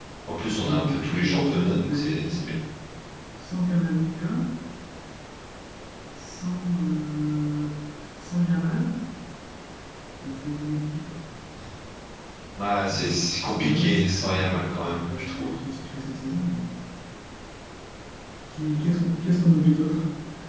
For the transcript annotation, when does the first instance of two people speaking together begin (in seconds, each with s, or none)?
0.6 s